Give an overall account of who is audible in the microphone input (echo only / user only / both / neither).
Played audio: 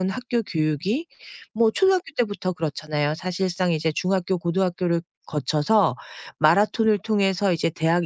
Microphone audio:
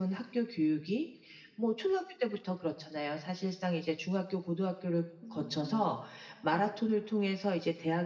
both